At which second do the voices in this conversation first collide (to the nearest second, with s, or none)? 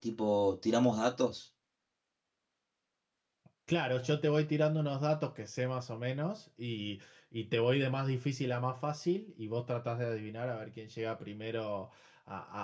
none